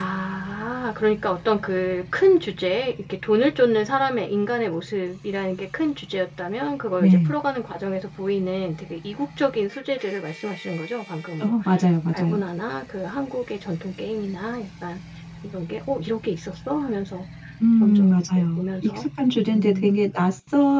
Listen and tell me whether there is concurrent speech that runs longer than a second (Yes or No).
Yes